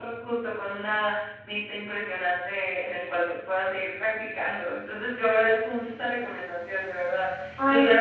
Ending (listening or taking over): listening